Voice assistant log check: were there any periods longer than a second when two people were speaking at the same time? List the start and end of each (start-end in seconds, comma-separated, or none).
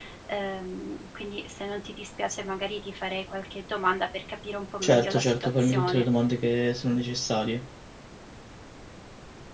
4.8-6.0